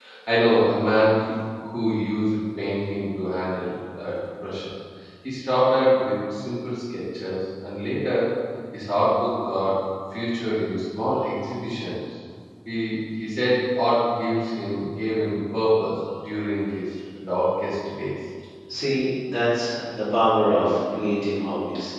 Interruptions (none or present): none